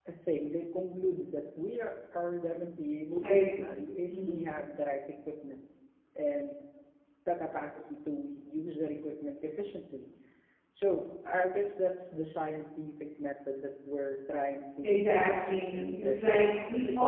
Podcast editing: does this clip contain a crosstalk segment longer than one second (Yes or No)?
Yes